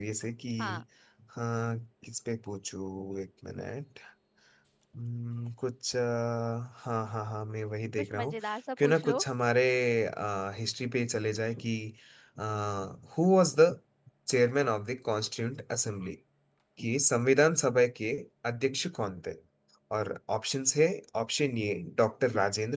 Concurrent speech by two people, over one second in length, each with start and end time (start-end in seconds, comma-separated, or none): none